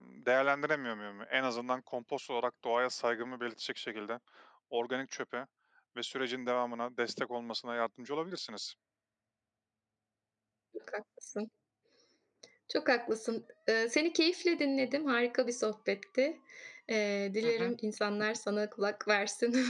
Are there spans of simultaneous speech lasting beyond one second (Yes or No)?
No